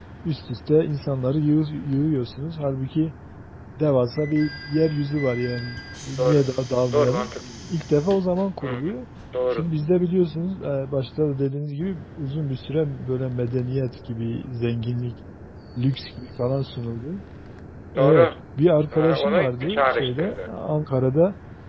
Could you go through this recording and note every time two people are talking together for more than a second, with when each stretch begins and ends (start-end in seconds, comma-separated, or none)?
18.9-20.5